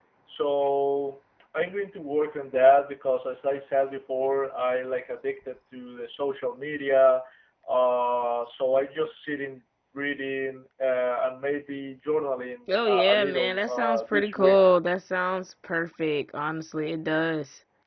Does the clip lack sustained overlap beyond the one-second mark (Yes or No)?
No